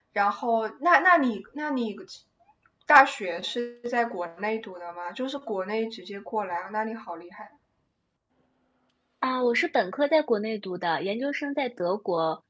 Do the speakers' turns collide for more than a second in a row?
No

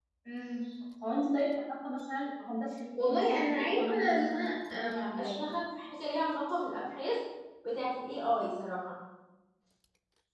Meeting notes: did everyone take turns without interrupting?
No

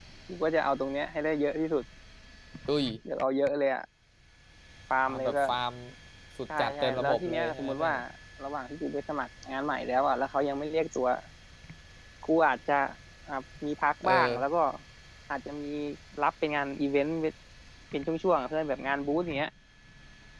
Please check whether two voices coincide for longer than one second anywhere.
Yes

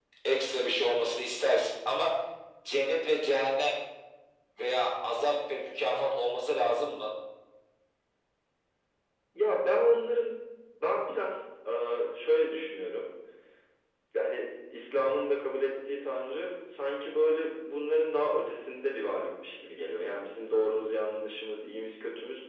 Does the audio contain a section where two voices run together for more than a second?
No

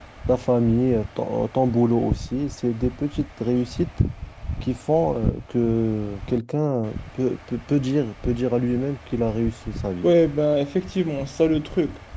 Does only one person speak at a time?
Yes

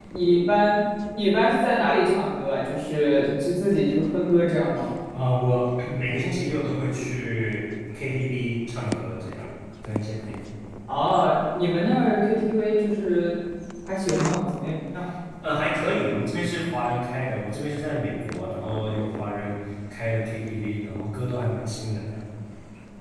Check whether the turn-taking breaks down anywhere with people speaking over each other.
No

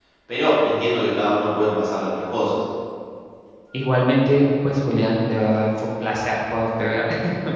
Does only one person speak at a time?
Yes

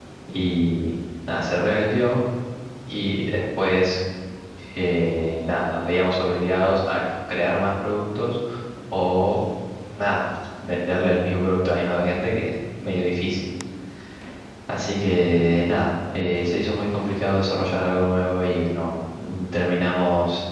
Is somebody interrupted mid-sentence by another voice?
No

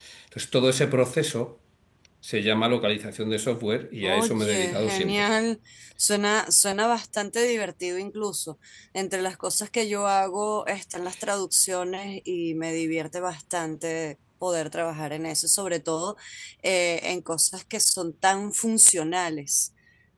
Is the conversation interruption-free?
No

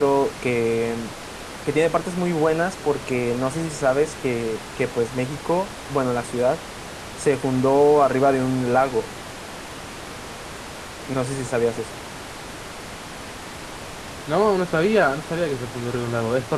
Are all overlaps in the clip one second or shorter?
Yes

